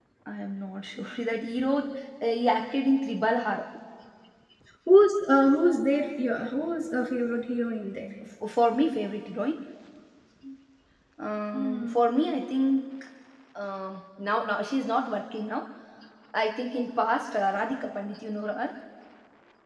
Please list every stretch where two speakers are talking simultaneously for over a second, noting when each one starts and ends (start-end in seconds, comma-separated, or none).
none